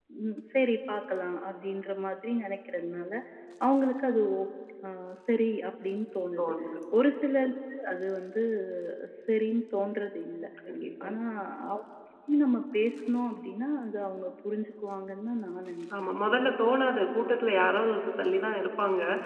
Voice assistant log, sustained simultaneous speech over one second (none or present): none